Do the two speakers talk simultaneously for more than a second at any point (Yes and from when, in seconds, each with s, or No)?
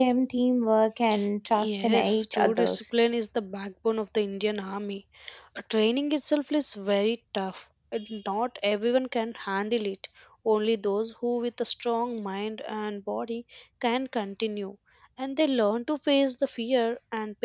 Yes, from 1.6 s